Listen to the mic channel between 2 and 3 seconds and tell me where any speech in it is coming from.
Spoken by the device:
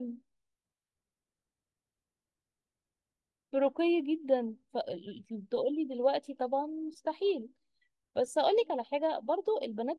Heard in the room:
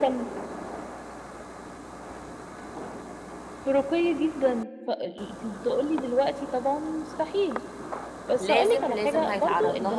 neither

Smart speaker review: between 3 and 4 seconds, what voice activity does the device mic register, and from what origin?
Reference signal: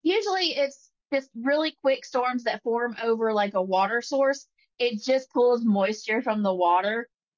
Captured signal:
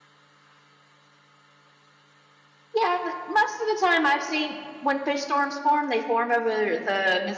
user only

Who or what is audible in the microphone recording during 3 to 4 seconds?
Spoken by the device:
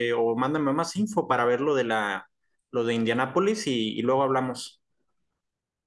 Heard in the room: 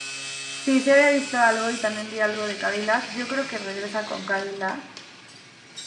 user only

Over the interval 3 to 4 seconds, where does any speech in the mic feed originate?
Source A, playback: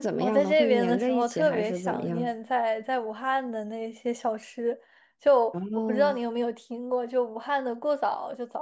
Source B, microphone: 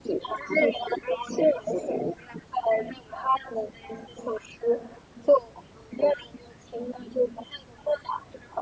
echo only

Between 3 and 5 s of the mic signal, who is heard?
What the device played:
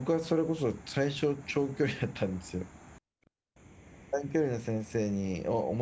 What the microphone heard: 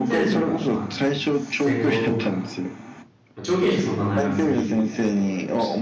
both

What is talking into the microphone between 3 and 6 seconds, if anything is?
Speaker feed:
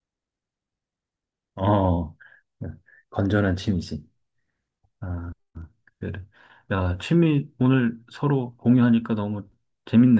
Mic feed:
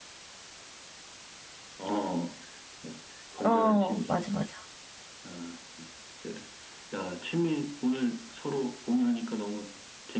both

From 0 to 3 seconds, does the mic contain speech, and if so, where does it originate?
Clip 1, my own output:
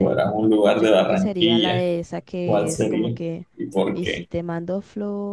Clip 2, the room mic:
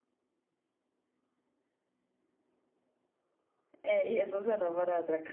neither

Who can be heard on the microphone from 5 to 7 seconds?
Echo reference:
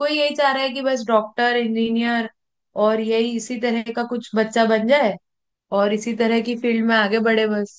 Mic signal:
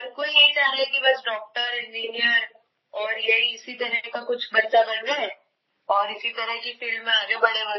echo only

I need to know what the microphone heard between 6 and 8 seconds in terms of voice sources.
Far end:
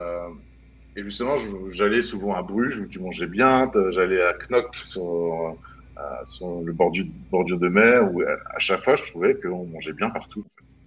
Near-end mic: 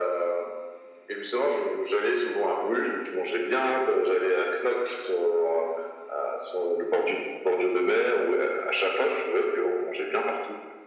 echo only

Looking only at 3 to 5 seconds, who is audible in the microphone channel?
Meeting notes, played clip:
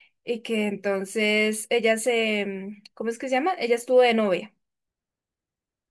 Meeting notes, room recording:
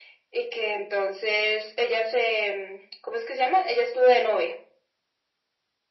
echo only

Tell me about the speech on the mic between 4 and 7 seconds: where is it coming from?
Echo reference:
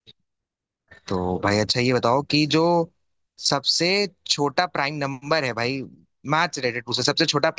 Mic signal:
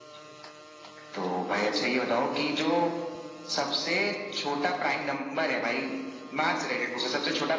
echo only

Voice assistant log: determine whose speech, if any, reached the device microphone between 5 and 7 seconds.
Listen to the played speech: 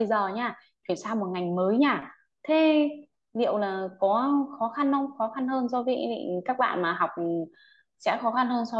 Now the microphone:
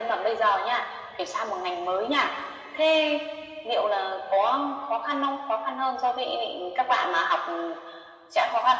echo only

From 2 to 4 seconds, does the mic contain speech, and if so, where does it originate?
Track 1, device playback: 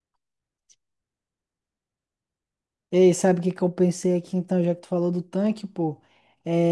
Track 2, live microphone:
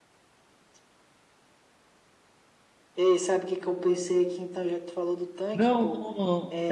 echo only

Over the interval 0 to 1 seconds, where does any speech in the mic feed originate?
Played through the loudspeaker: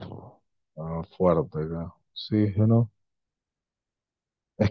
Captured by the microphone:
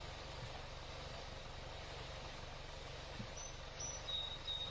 neither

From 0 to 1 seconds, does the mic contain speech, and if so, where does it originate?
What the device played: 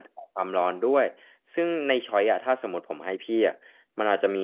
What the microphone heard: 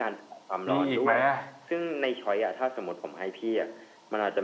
both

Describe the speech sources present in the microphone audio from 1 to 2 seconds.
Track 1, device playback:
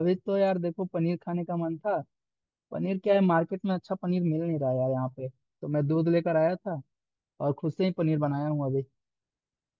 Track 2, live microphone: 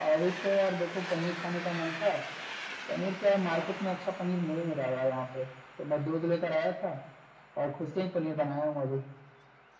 echo only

